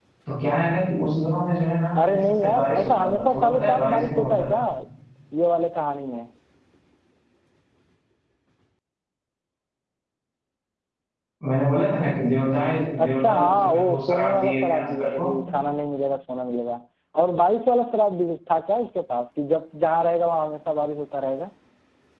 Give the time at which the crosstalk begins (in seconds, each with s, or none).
2.0 s